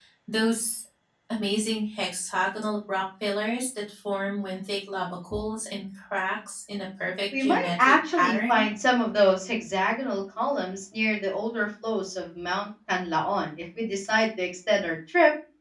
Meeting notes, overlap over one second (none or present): present